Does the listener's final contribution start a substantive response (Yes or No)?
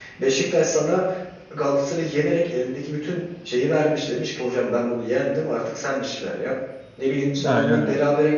No